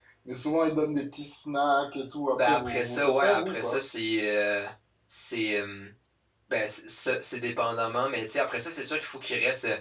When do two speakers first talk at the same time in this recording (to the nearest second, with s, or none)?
2 s